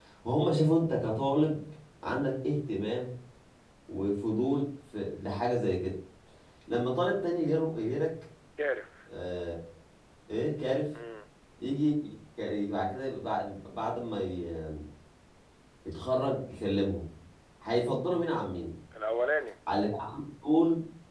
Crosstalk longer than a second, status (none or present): none